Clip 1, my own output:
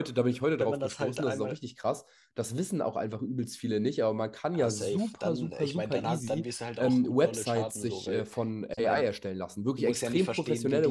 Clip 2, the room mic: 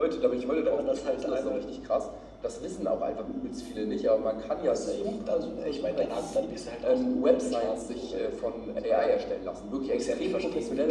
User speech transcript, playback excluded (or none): none